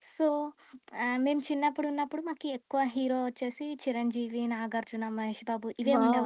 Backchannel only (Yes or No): No